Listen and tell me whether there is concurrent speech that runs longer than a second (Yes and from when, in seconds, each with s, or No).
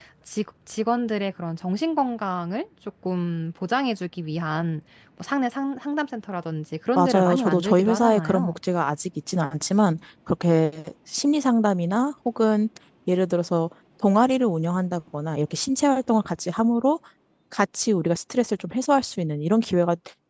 Yes, from 7.0 s